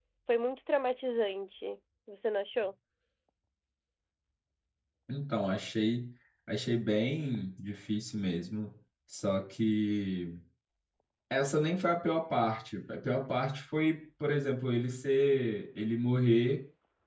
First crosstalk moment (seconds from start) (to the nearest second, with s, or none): none